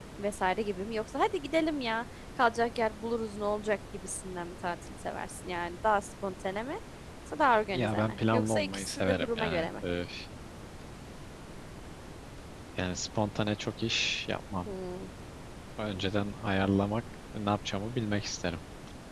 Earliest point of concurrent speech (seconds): 7.7 s

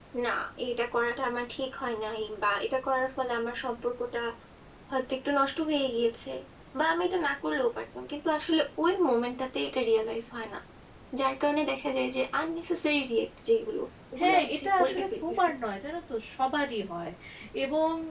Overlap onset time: 14.2 s

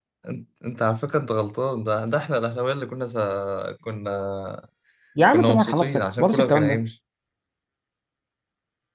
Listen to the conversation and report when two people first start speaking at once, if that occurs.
5.3 s

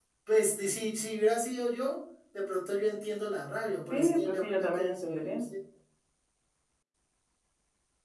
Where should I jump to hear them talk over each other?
3.9 s

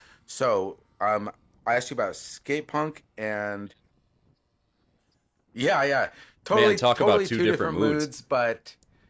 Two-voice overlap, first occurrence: 6.5 s

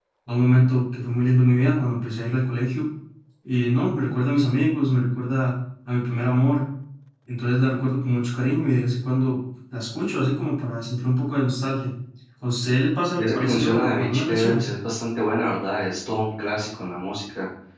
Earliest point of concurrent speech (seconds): 13.2 s

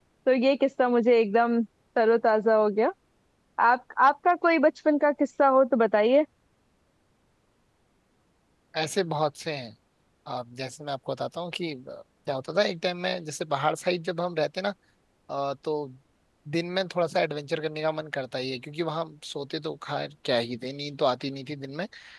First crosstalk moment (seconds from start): none

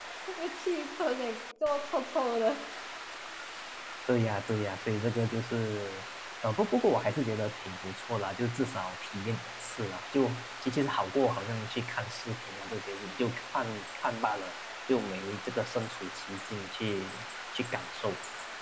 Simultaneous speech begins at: none

